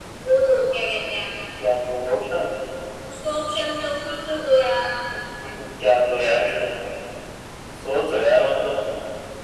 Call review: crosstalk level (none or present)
none